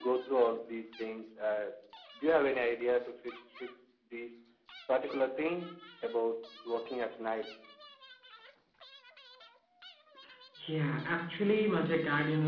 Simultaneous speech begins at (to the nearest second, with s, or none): none